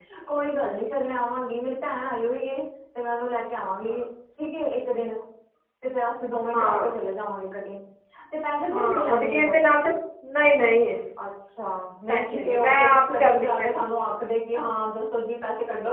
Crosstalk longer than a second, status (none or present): present